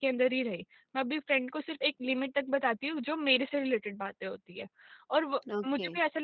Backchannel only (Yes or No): Yes